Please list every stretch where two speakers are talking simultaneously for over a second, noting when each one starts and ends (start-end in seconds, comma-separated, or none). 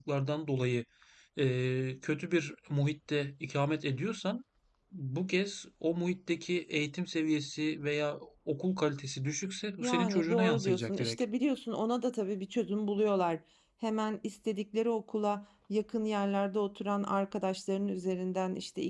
9.8-11.2